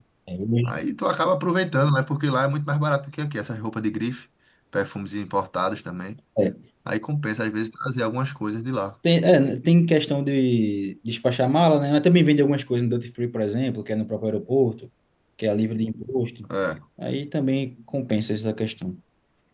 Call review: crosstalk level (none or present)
none